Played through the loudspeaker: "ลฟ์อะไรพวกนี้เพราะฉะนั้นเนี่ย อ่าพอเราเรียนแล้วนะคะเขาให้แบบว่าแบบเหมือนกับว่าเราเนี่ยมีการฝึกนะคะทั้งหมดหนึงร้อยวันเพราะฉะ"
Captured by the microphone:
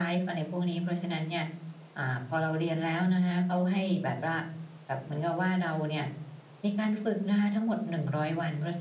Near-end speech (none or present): none